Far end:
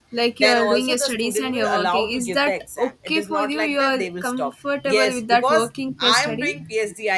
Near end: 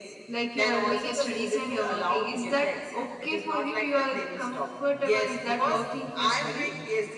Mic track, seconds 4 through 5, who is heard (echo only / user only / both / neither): echo only